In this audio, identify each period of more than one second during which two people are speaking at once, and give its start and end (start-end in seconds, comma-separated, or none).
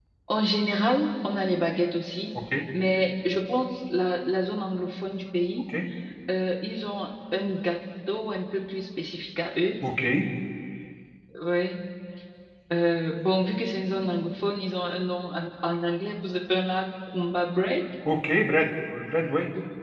none